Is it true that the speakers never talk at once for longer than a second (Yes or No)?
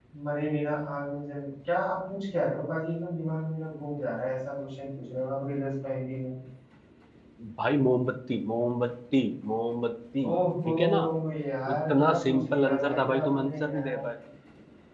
No